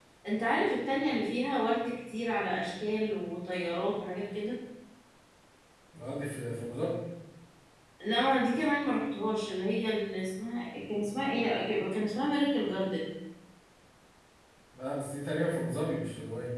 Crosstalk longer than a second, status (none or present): none